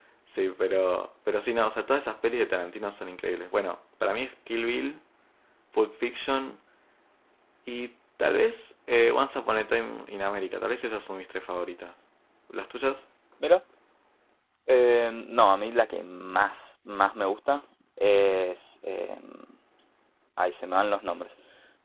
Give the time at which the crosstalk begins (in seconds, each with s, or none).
none